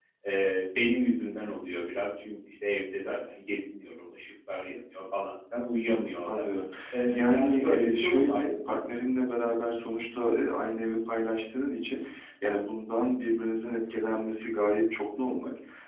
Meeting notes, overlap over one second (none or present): present